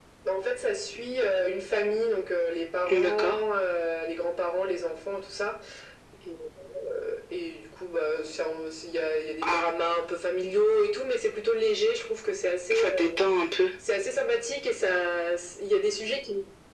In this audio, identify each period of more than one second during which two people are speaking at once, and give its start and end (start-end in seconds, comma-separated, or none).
none